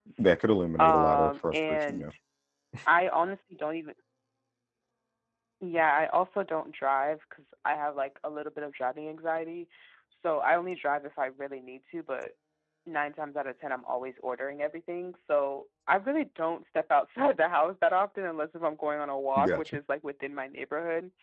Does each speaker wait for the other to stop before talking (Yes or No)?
No